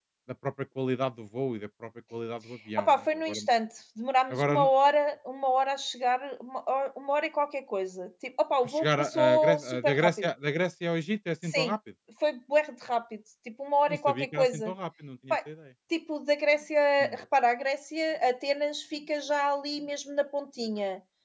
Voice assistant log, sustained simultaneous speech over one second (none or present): present